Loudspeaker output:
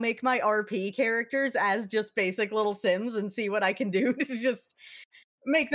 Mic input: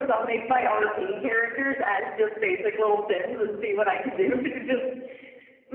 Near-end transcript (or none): Yeah.